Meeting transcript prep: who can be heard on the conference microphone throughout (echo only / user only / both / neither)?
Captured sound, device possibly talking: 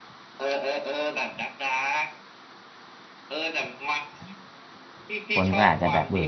both